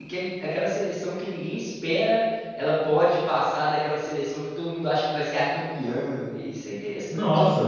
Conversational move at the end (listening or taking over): taking over